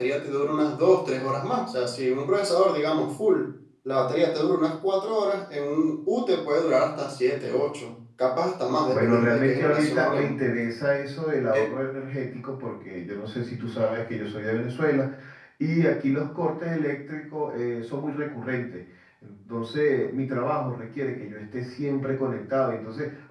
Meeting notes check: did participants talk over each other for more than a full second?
Yes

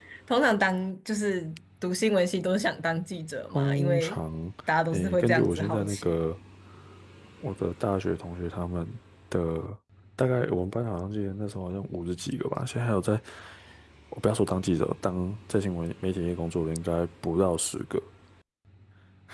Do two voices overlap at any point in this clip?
Yes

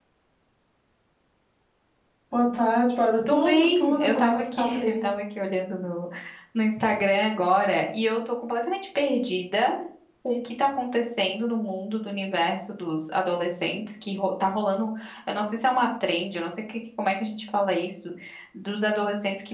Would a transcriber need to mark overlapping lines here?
Yes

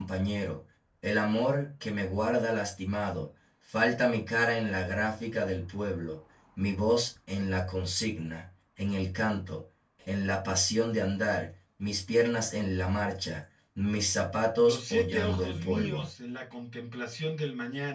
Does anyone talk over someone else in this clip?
Yes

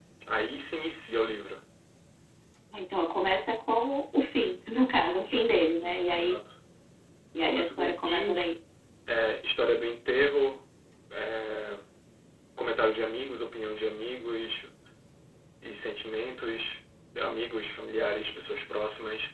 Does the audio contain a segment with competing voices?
Yes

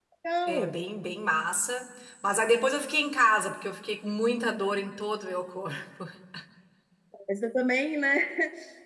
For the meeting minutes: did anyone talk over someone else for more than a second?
No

